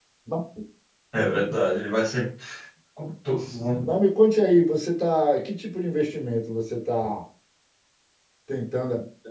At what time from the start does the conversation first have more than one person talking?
none

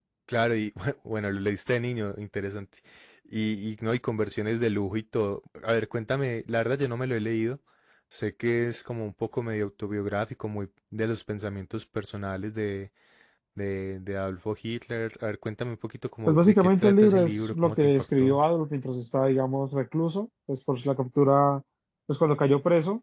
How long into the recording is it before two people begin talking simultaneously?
16 s

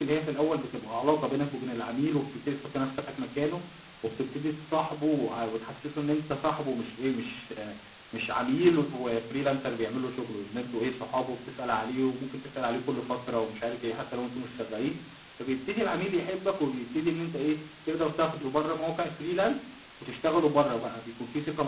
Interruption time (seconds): none

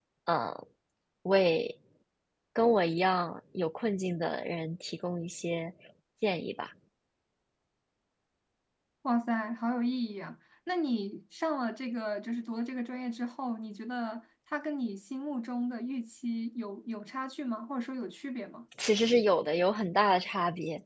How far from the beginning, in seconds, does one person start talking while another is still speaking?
none

